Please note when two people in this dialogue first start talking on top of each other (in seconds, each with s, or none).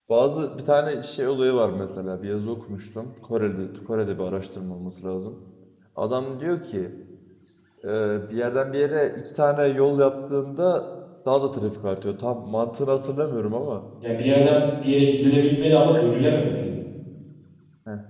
none